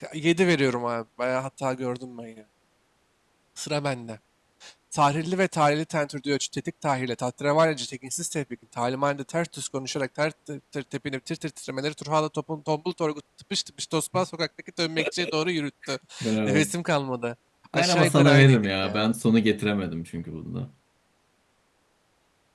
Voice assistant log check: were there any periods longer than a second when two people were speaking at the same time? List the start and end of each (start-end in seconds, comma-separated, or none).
17.7-19.1